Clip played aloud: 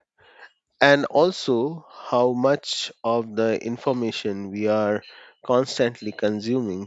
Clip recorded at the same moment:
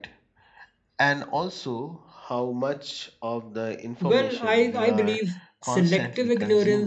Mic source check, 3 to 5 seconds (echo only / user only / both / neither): both